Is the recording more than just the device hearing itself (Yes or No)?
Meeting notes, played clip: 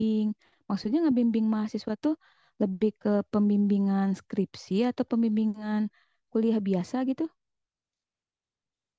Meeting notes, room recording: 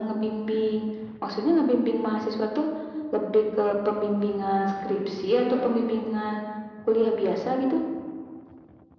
No